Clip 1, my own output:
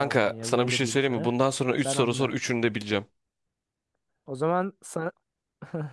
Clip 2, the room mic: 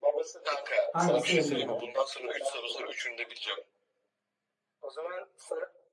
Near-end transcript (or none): Hangisi en derindir?